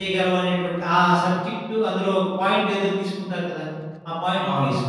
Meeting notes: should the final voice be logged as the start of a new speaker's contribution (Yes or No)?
No